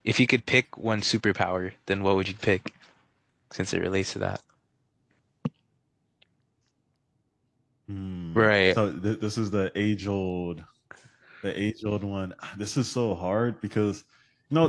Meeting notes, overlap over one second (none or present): none